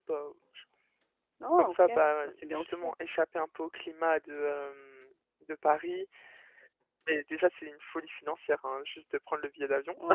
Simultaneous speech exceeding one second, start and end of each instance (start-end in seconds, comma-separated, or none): 1.6-2.9